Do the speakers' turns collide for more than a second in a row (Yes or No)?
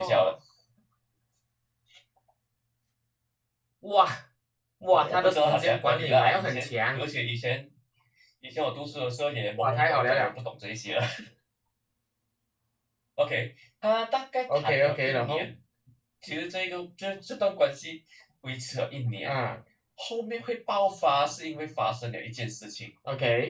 Yes